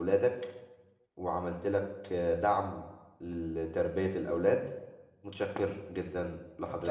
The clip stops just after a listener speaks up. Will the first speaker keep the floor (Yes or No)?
No